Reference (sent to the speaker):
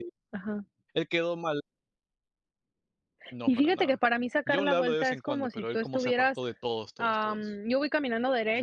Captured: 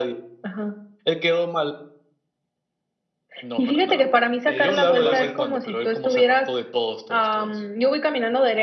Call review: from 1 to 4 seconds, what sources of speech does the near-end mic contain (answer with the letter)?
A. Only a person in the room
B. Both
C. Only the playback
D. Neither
C